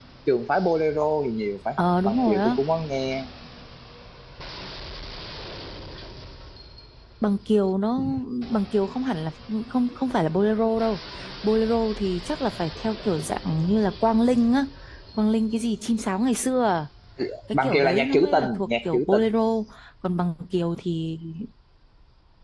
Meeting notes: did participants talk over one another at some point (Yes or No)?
Yes